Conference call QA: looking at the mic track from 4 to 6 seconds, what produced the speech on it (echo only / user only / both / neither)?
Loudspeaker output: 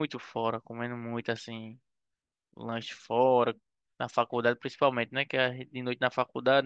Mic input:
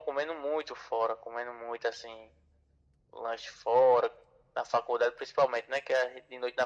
echo only